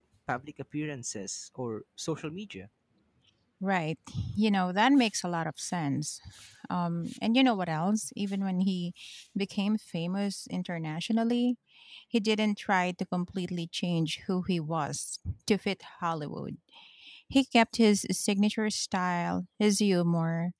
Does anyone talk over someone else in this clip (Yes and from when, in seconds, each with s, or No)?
No